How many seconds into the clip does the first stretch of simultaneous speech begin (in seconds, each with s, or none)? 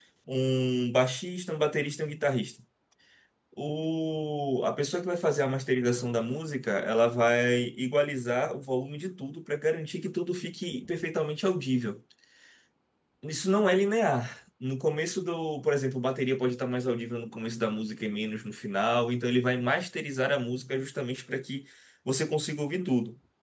none